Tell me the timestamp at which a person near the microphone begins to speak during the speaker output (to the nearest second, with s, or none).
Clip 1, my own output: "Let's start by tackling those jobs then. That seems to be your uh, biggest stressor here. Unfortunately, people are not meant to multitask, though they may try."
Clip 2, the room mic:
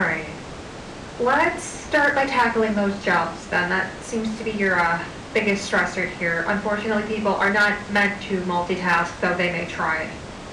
none